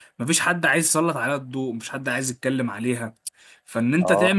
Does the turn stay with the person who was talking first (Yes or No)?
Yes